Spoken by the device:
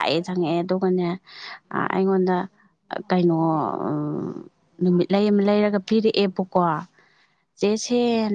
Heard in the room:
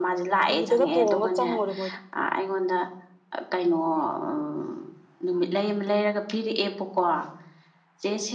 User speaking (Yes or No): Yes